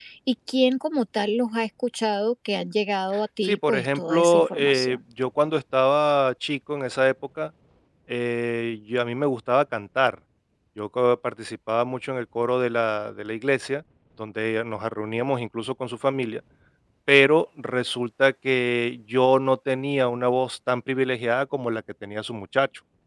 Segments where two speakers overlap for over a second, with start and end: 3.4-5.0

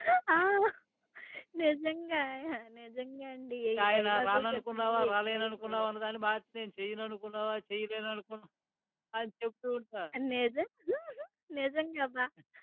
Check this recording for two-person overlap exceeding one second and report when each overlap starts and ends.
3.9-5.9

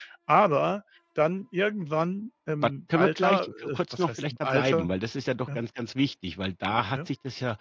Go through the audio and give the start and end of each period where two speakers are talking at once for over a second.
2.6-4.9

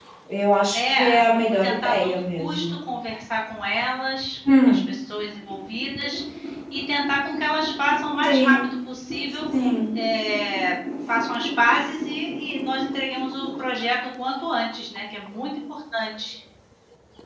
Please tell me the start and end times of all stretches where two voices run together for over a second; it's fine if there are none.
0.7-2.8

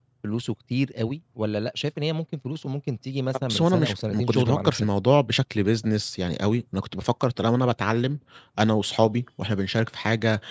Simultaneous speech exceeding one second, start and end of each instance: 3.3-4.9

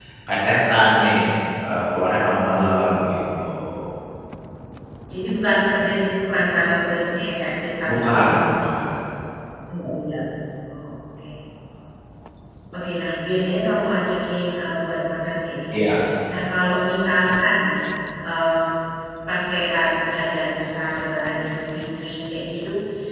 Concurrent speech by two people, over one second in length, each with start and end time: none

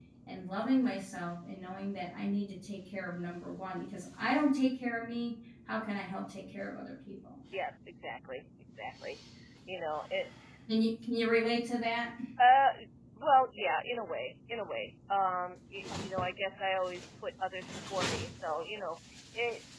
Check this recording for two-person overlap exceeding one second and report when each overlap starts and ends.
none

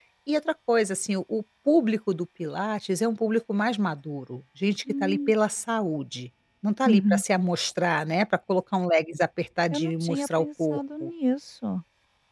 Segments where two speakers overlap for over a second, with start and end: 9.7-11.1

